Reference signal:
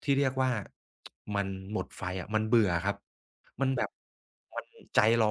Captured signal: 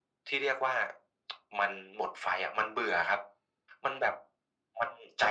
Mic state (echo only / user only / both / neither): echo only